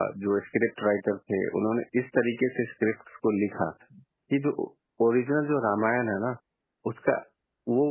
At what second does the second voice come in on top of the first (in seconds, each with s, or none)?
none